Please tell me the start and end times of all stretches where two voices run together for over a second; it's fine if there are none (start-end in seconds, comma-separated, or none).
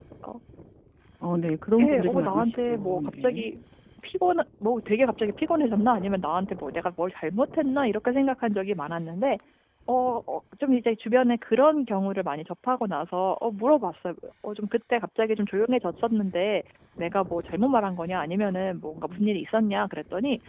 1.8-3.5